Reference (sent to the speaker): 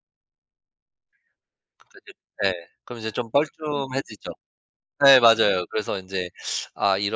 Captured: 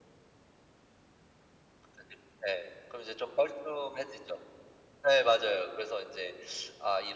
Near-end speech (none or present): none